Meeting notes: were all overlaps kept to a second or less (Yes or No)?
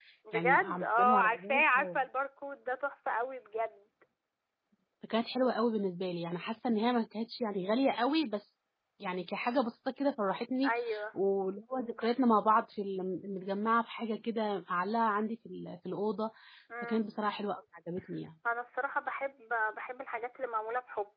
No